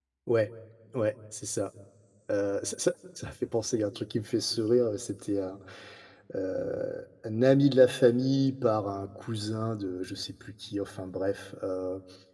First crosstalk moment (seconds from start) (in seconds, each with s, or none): none